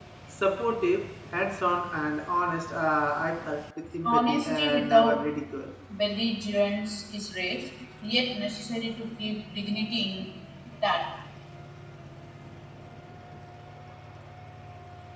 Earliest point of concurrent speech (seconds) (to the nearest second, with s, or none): 4 s